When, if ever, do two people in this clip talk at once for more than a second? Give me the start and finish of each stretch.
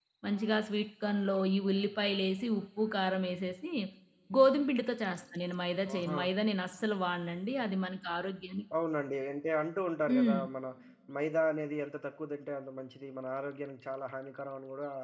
none

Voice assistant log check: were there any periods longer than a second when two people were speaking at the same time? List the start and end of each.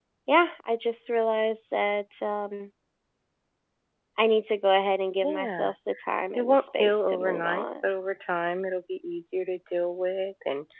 6.4-7.7

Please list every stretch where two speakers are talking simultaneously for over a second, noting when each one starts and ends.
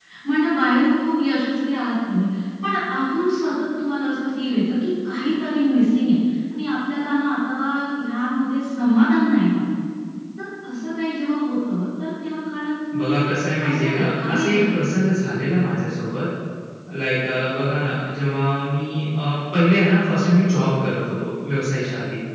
13.6-14.8

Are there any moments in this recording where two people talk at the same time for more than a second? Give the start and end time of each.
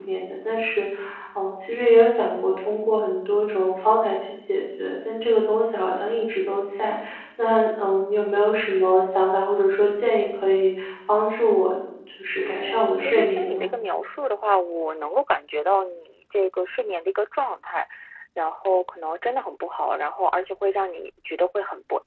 12.4-13.7

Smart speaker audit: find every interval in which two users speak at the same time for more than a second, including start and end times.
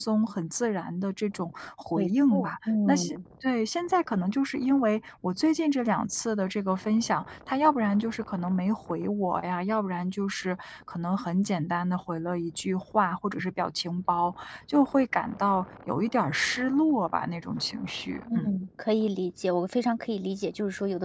1.9-3.2

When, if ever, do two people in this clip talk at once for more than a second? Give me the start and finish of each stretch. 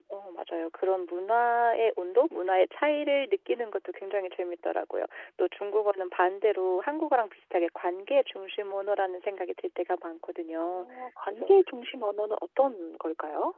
none

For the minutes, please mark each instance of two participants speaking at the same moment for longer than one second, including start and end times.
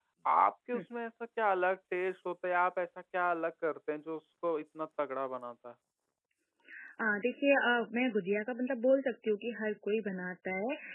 none

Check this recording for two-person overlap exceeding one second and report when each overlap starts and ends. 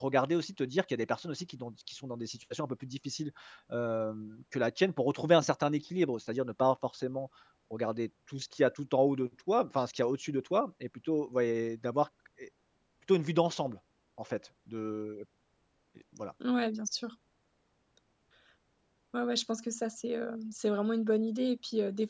none

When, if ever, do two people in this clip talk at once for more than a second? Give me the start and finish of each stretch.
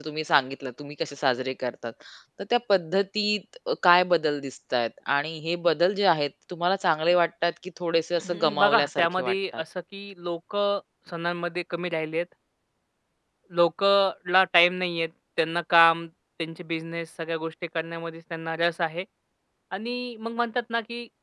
8.2-9.6

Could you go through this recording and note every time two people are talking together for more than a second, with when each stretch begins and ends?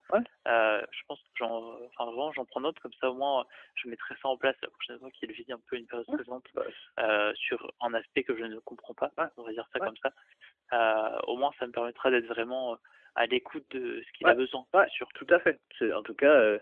none

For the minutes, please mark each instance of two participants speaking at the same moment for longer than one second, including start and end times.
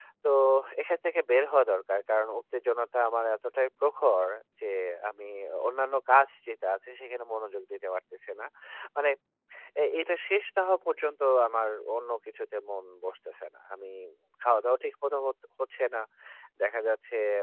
none

